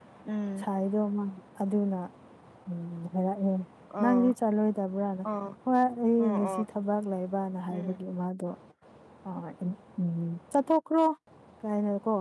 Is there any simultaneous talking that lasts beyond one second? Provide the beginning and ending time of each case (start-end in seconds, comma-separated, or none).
none